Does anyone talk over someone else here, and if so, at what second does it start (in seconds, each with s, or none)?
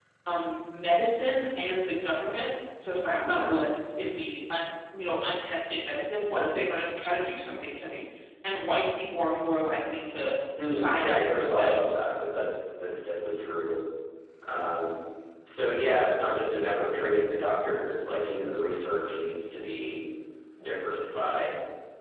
10.6 s